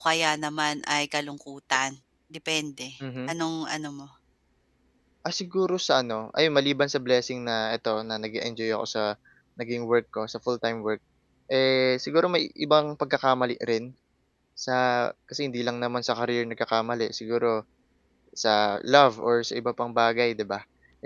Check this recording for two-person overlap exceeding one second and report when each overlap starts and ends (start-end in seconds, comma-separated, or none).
none